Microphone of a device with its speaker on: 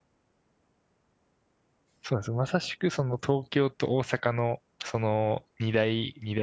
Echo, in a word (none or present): none